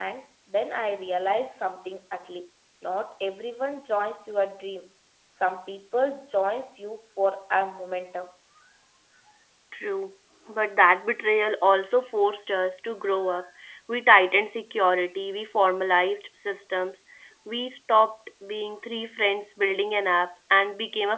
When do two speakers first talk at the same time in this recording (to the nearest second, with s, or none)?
none